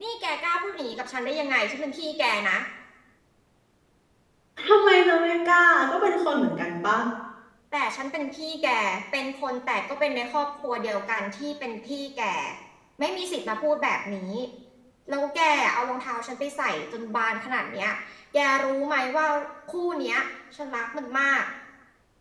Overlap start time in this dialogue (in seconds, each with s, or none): none